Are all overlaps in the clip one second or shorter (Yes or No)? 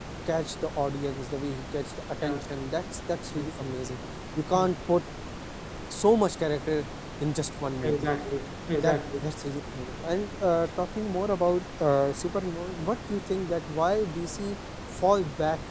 Yes